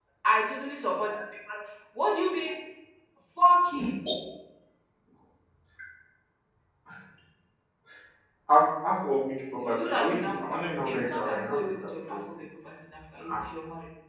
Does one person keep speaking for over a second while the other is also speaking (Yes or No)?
Yes